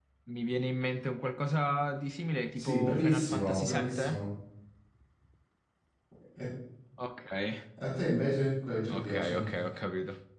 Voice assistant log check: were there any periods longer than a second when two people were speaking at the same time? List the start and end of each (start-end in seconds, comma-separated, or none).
2.5-4.2